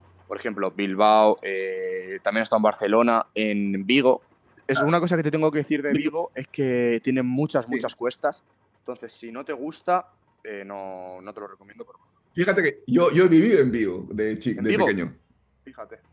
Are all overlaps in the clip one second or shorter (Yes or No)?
Yes